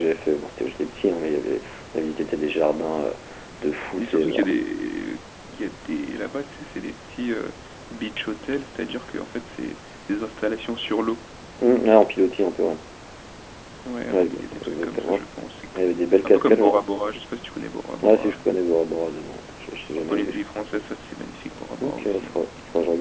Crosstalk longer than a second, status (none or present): present